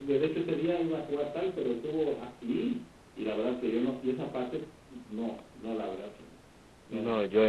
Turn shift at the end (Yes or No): Yes